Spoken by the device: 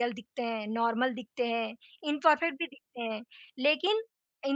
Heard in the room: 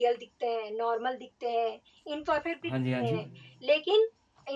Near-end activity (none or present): present